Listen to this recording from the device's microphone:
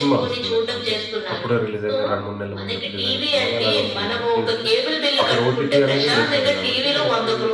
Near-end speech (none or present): present